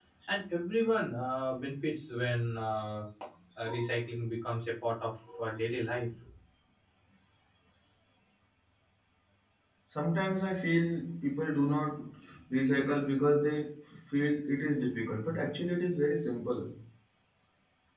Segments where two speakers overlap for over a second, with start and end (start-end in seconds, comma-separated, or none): none